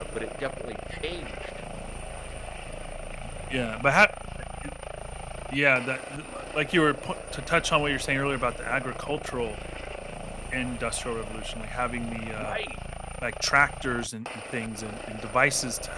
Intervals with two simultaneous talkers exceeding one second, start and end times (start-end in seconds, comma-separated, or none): none